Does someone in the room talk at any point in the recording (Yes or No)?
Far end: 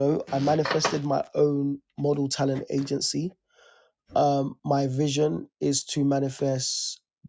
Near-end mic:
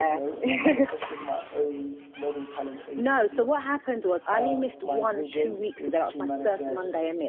Yes